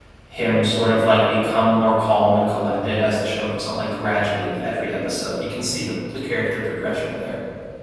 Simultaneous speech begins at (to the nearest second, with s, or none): none